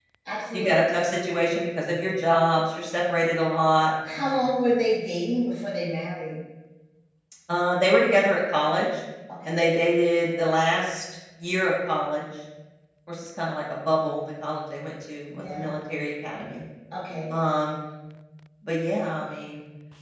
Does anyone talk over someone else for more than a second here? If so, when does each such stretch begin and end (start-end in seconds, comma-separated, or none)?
none